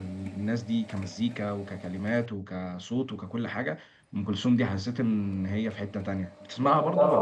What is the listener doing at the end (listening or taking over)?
taking over